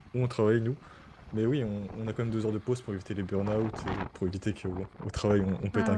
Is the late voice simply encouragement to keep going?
No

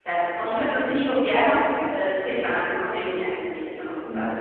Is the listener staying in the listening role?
No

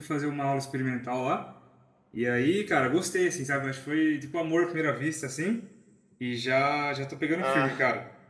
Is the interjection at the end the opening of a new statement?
No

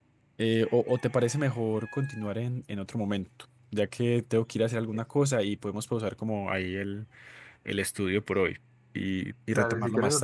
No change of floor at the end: No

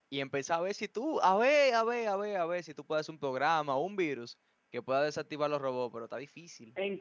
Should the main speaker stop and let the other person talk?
Yes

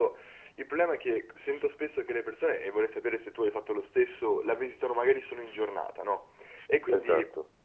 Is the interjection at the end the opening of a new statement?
No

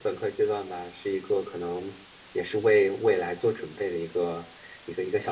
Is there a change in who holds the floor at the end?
Yes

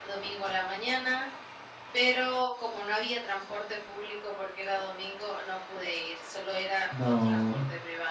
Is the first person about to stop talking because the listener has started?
No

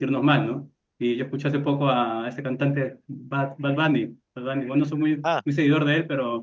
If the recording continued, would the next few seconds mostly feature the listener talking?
No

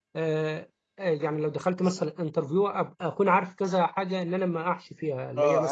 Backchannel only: No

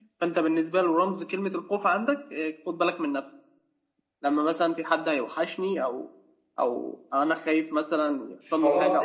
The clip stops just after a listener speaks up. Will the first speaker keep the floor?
No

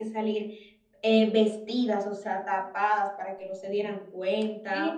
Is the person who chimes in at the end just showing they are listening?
No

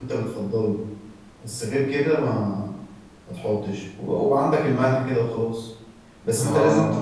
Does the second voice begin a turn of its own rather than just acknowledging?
No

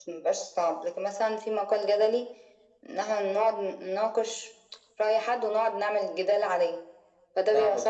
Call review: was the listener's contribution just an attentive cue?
No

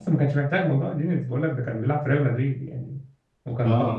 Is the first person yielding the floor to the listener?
No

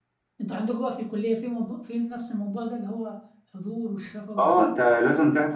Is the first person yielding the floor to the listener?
Yes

